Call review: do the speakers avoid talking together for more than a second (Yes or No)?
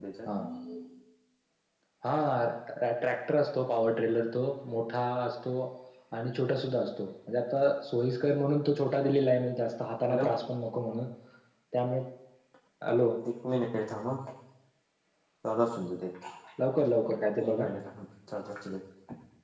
Yes